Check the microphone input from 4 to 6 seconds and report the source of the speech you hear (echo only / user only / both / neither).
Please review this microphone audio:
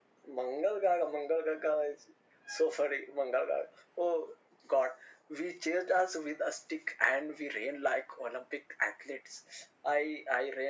echo only